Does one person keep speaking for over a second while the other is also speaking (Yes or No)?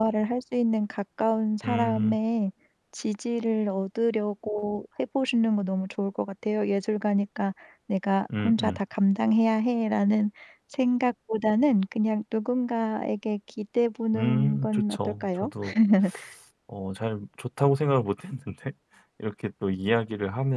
Yes